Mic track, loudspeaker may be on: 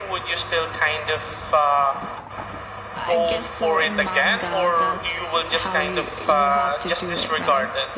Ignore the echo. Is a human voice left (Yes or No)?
Yes